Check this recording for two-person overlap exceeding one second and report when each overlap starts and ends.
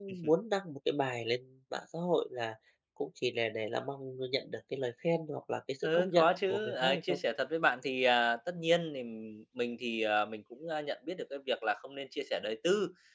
5.8-7.2

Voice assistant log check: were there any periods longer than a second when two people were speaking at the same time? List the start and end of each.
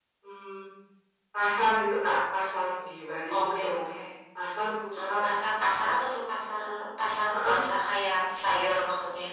none

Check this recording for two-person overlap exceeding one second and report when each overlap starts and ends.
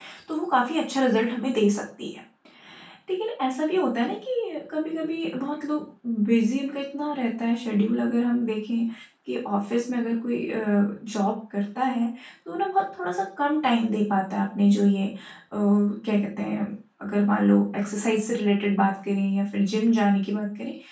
none

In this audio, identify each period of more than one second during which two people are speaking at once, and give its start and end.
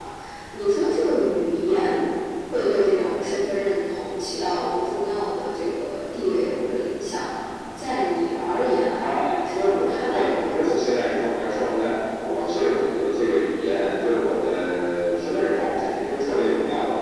9.0-11.0

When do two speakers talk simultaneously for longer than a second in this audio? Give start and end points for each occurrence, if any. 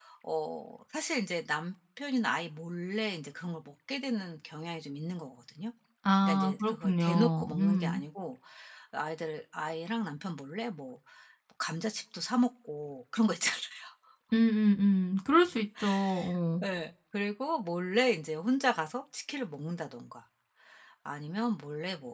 6.2-8.0

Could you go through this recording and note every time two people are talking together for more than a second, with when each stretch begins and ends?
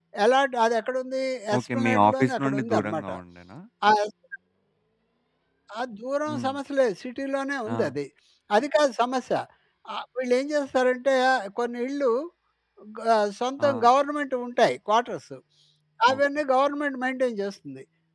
1.6-3.1

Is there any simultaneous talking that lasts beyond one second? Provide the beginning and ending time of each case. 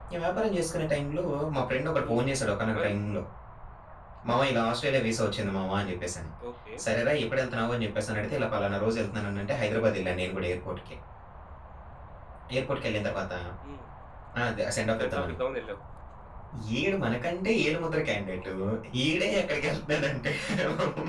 none

